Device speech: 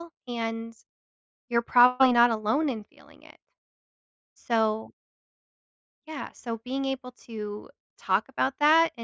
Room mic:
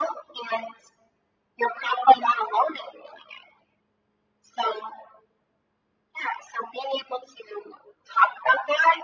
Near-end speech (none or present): none